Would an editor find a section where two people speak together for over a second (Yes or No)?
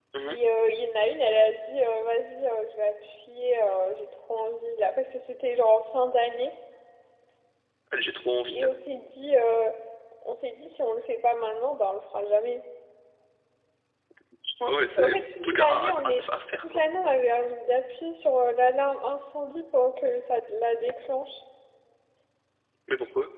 Yes